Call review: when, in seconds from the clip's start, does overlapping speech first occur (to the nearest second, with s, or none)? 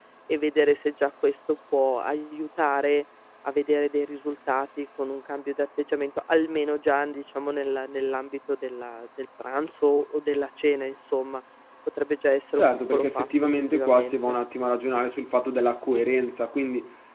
13 s